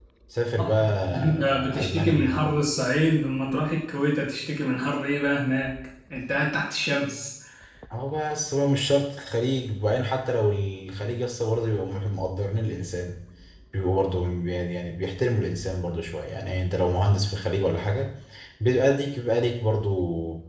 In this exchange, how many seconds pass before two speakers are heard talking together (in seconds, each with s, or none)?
0.6 s